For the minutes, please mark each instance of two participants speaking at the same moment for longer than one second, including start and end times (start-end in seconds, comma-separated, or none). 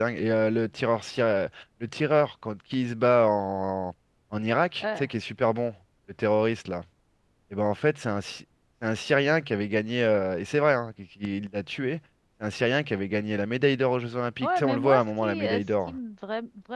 14.4-15.9